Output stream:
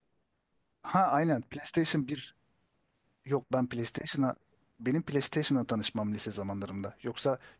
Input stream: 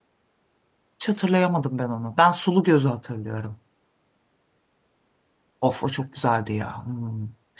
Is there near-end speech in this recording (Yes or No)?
Yes